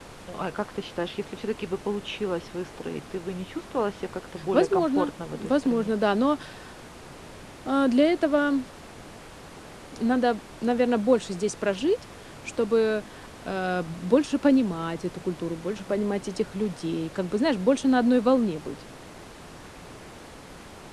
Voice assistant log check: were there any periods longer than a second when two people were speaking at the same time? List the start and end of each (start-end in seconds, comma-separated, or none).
4.5-5.9